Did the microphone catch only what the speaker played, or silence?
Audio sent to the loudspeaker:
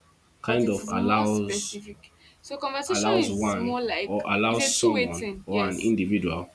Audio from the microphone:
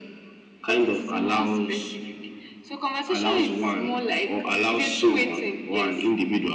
Yes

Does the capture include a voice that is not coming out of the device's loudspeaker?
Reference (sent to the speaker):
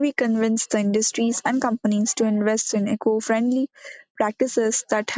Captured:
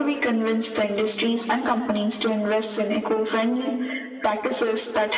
No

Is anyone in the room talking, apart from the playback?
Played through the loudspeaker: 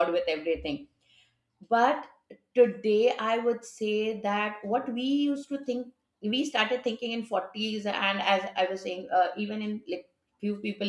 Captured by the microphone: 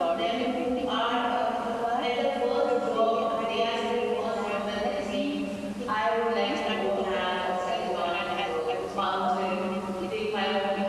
Yes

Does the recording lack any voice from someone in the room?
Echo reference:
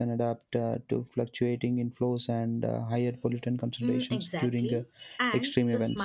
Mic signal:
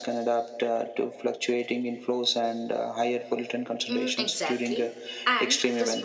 Yes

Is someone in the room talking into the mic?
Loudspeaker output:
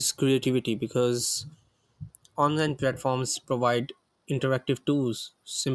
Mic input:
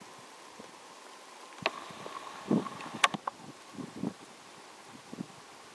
No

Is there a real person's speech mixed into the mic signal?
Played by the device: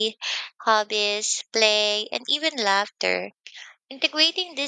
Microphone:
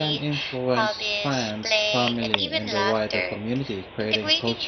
Yes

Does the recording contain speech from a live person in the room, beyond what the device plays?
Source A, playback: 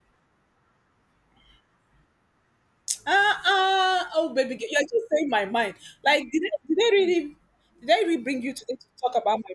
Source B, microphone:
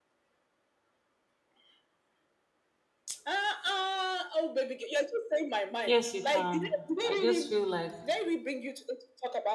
Yes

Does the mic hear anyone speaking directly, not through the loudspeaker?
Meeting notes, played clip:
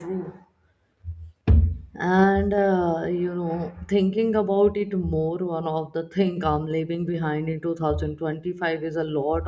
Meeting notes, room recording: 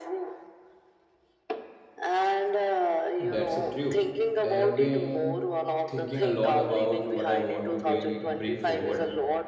Yes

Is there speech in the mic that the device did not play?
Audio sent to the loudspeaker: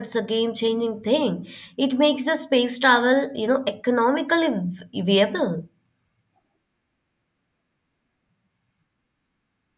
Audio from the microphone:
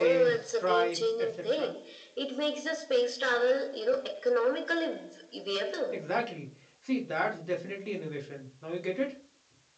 Yes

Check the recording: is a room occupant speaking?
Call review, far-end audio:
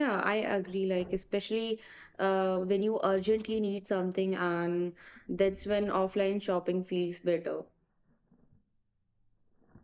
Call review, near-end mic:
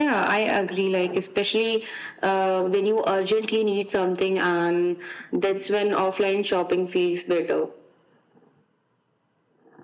No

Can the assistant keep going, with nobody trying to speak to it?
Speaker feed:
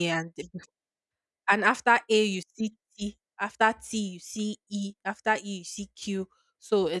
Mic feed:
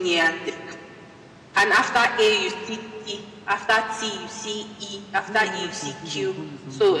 No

